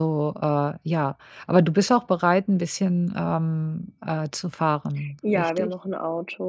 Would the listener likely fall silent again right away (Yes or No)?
No